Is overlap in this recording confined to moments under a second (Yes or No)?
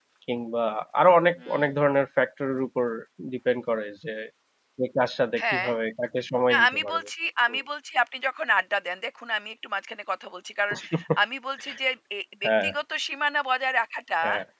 Yes